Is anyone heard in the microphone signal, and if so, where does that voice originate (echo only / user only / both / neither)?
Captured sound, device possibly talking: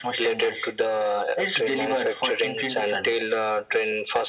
echo only